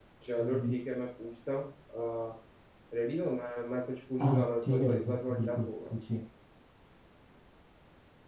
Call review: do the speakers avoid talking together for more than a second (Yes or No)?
No